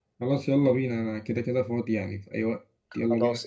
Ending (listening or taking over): taking over